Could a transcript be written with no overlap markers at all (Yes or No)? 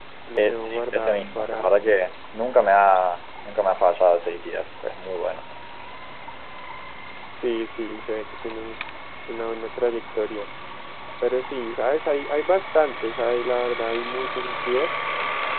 No